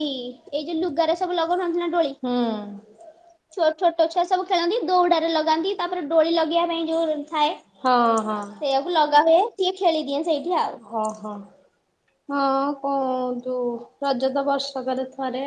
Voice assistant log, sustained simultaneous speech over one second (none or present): none